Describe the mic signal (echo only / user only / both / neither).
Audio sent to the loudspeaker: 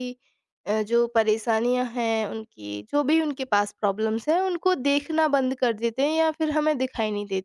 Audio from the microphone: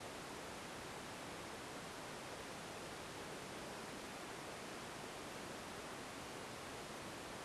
neither